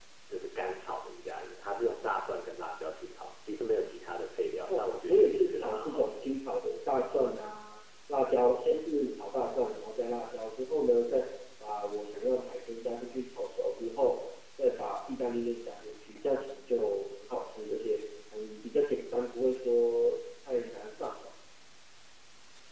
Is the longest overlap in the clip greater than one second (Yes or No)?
Yes